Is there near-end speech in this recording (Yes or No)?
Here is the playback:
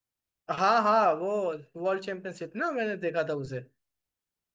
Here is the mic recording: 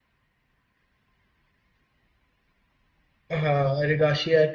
Yes